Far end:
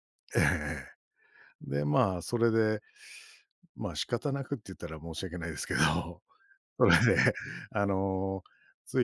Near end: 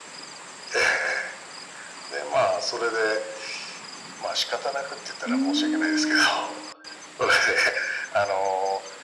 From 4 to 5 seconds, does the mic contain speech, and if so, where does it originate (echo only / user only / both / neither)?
echo only